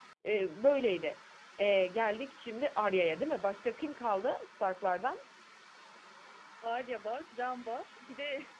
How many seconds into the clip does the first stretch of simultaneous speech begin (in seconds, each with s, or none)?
none